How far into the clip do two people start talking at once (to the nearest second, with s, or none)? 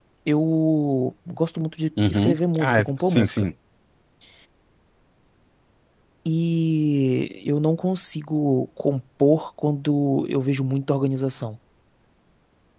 2 s